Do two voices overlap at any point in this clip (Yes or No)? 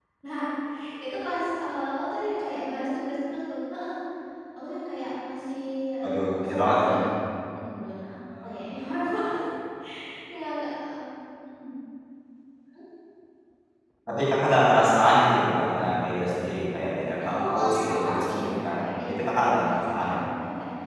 Yes